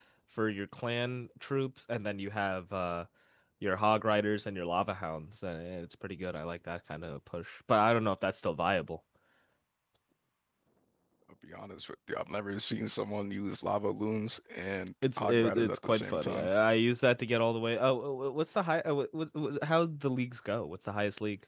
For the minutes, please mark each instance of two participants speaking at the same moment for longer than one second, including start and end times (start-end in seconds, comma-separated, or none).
15.2-16.5